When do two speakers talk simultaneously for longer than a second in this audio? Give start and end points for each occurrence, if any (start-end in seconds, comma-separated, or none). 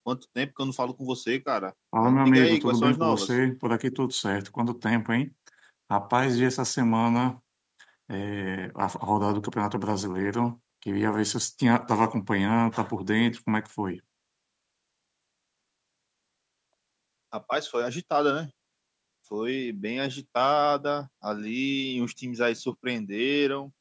2.0-3.4